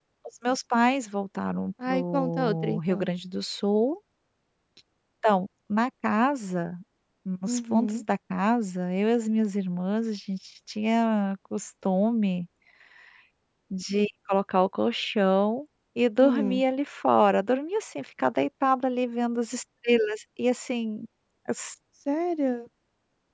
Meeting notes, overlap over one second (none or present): present